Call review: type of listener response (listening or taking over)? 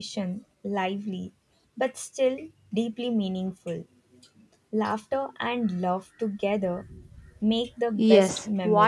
taking over